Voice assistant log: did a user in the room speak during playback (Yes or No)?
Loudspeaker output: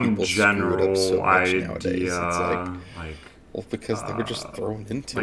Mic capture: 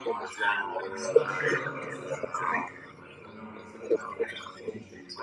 Yes